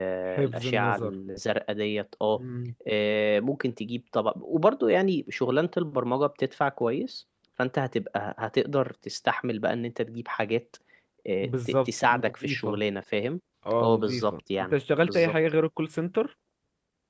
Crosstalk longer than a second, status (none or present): present